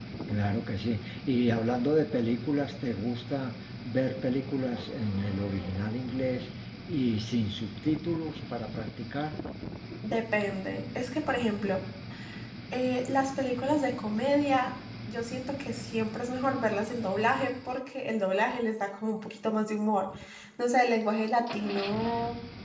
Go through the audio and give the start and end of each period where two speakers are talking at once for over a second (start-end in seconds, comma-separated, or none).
none